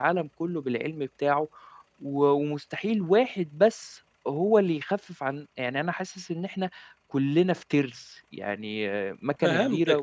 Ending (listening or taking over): taking over